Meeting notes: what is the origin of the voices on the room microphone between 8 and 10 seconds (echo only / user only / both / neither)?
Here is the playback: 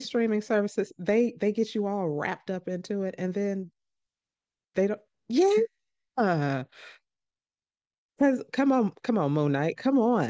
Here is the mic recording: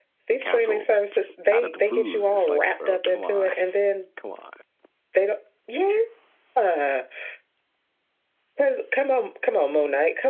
echo only